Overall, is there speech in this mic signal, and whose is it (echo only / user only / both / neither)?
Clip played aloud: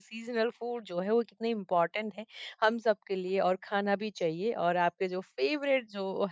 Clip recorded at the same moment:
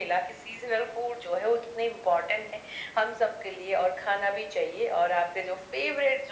echo only